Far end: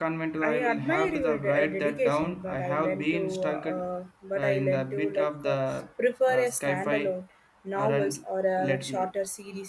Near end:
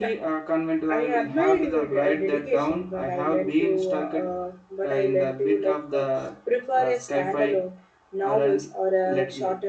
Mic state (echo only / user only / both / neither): echo only